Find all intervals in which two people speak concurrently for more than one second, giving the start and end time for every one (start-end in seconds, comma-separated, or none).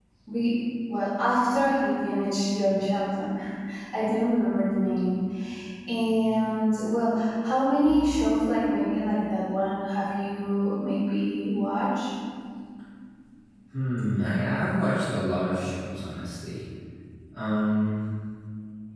none